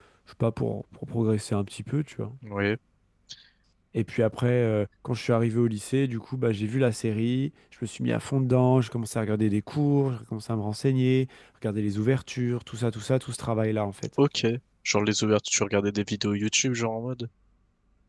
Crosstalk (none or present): none